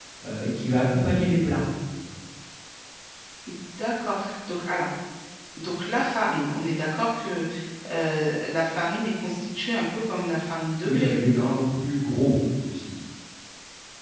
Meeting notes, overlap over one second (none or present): none